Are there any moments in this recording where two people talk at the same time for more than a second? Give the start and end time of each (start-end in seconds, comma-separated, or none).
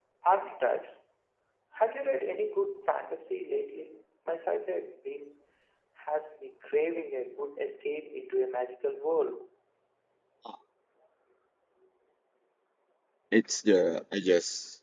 none